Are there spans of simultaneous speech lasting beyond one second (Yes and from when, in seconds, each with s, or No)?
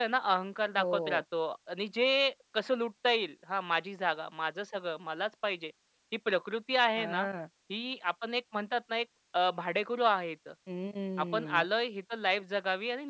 No